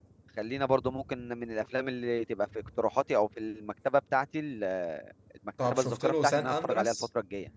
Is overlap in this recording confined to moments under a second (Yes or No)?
No